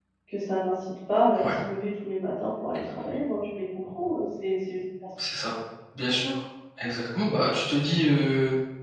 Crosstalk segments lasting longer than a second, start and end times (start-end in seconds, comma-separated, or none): none